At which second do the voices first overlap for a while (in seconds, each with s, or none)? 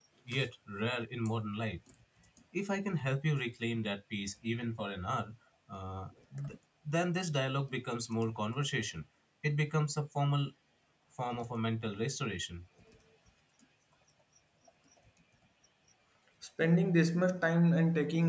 none